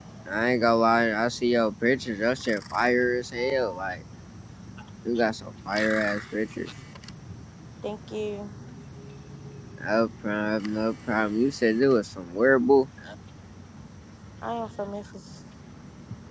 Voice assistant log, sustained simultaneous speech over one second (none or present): none